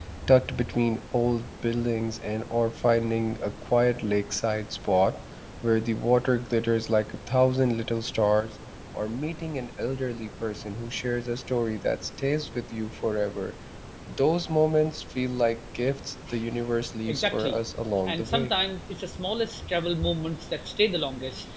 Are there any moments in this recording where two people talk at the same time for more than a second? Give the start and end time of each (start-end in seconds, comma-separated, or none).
none